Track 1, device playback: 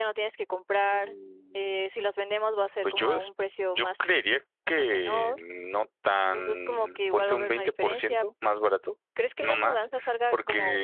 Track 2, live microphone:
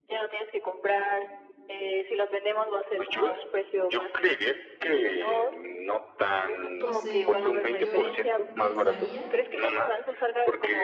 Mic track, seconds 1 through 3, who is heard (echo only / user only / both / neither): echo only